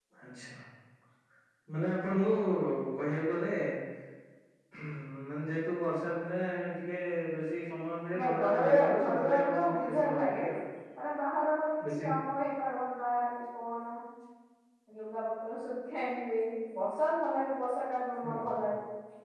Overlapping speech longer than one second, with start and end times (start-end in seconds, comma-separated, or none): 8.2-10.4